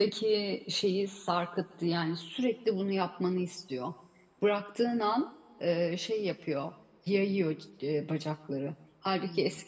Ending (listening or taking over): listening